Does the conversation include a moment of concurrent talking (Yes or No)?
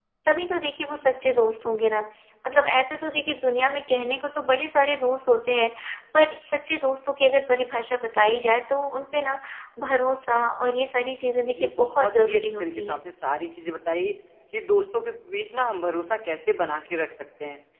Yes